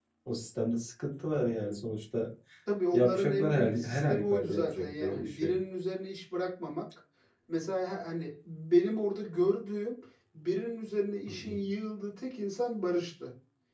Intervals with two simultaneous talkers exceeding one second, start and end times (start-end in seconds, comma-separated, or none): 2.9-5.6